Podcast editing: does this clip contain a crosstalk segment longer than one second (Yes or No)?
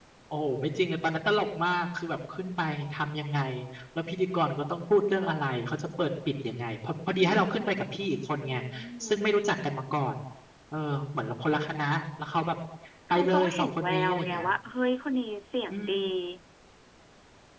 Yes